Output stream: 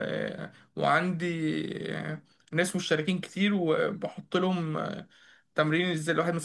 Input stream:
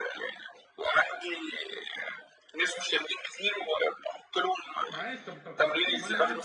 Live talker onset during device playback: 4.9 s

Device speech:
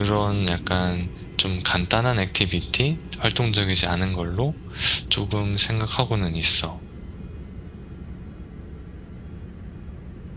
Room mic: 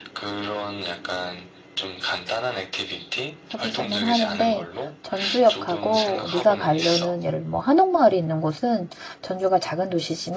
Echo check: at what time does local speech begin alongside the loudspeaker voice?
3.5 s

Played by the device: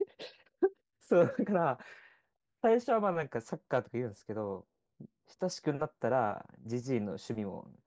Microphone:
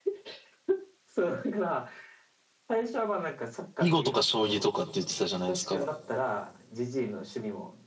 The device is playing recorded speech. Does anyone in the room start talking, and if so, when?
3.8 s

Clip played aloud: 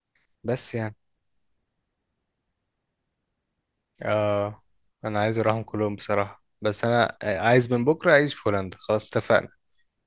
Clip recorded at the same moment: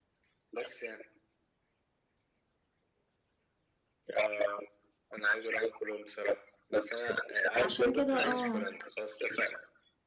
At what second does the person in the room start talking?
7.5 s

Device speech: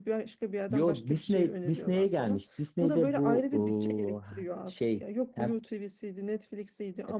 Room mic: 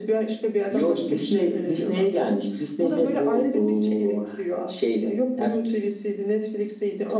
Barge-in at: none

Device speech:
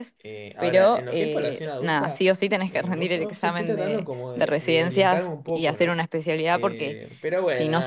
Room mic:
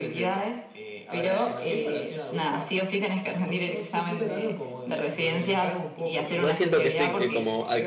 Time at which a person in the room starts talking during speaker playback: 6.3 s

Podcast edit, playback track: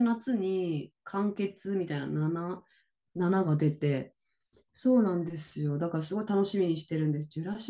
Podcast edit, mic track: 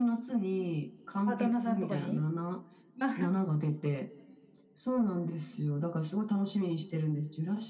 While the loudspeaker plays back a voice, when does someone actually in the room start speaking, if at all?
1.2 s

